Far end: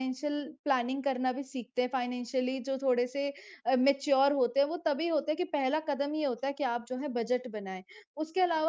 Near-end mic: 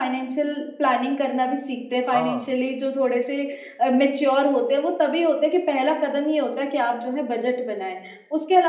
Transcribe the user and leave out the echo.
हाँ,

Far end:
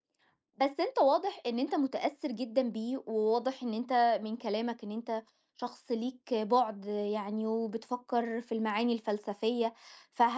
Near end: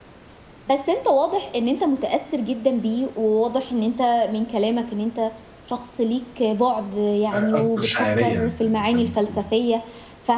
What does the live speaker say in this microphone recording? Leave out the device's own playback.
أ أكتر شاعرية ز زي ما بتقولي.

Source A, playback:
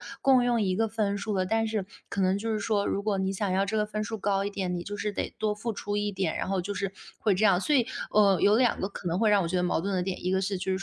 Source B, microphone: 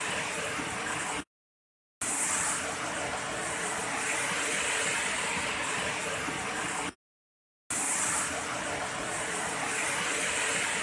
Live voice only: none

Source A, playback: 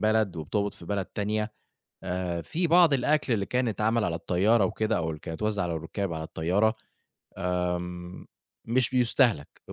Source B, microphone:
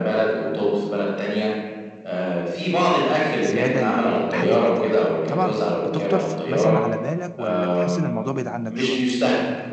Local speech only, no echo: زيادة ل لحد محتاج، طبعًا بتخطر ف مثلًا على بالك والّا بتحس إن الموضوع بعيد عنّك شوية؟

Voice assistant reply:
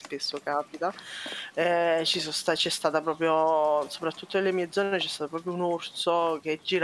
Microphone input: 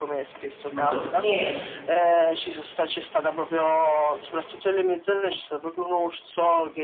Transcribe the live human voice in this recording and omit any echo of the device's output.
non costa niente.

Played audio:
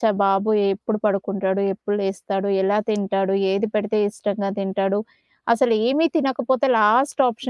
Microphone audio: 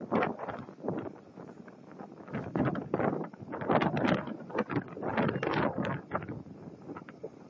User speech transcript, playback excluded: none

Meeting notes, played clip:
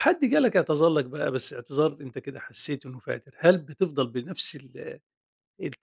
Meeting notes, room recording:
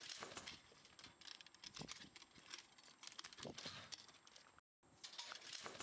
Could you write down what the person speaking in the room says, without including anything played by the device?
none

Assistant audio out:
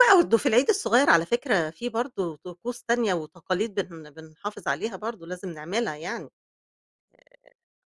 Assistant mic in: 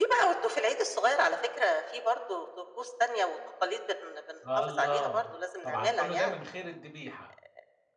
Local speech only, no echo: الله! طبعًا كُلّه ده من غير الدبيحة.

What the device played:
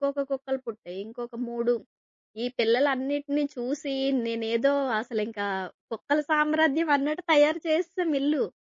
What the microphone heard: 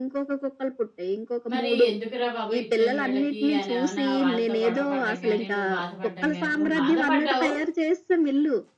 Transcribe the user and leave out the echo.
మరి ఎందుకురా బాబు ఇచ్చాను వీళ్ళకి అనేమన్నా వాళ్ళతో గొడవ పడడం గాని, నువ్వు బాధపడడం గాని నువ్వు బాధపడ్డావు.

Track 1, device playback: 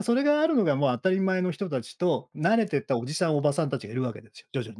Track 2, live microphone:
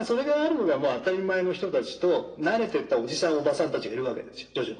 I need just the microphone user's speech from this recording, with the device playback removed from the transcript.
none

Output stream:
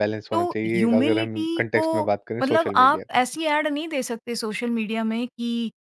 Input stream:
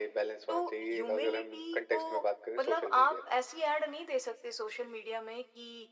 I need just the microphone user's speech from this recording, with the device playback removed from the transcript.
none

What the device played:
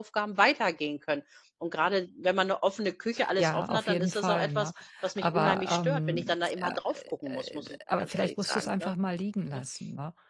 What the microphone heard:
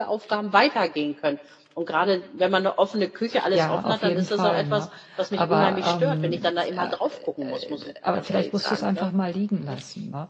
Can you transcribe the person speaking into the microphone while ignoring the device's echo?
none

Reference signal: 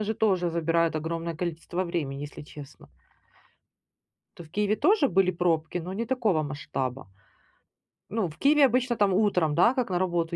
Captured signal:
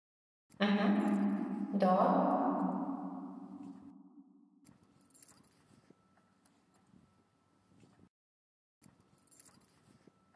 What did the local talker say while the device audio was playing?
Мгм. Да.

